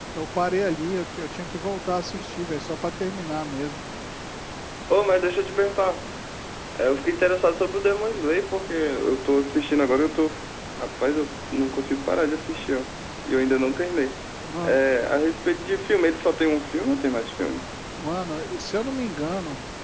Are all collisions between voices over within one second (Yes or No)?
Yes